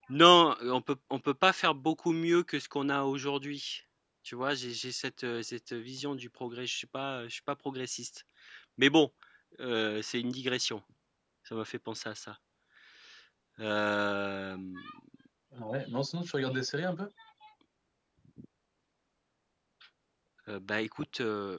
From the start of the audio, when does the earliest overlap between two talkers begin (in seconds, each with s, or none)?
none